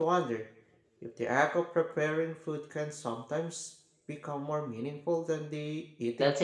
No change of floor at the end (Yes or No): No